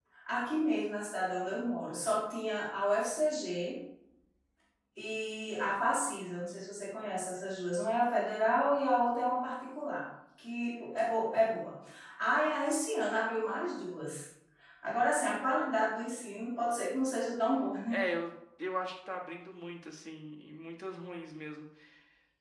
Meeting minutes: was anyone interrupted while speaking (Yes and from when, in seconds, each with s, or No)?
No